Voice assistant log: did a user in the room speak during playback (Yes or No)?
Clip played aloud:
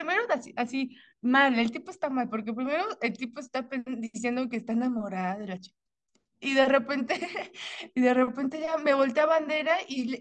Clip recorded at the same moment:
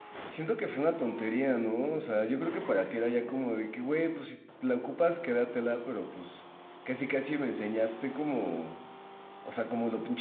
Yes